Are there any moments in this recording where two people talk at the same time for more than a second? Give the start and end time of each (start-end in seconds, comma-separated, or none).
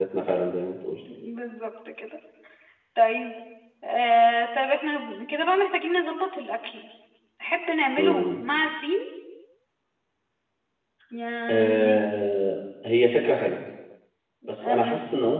none